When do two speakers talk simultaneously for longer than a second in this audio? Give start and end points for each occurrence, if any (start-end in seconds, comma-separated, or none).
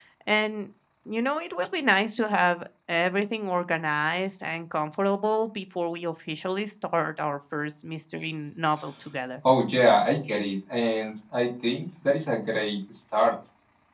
none